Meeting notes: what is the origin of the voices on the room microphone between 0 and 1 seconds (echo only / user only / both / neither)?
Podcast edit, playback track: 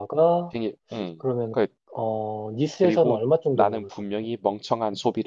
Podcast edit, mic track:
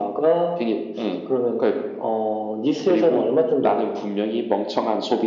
echo only